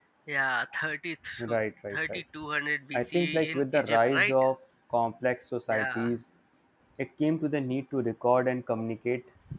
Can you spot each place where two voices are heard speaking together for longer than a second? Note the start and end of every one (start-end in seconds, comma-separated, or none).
2.9-4.3